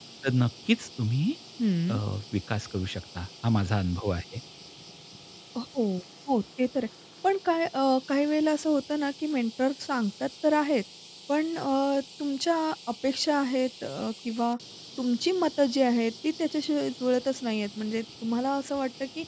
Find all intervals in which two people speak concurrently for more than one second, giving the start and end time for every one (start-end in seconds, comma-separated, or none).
none